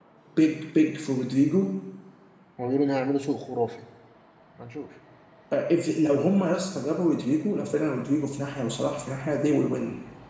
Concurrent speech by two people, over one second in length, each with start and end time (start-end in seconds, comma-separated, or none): none